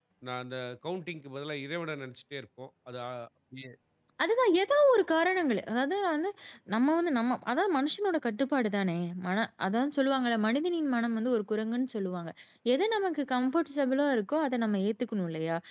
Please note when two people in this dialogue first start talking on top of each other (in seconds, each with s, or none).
none